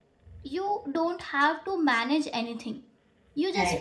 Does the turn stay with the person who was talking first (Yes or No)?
Yes